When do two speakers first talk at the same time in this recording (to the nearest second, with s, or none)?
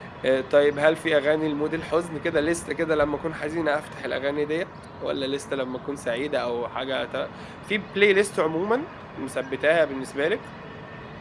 none